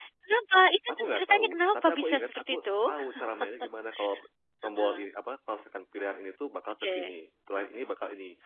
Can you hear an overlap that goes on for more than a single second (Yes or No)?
Yes